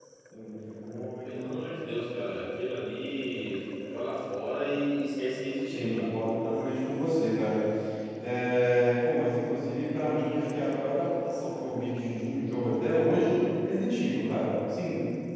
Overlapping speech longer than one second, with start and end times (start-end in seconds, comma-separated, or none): none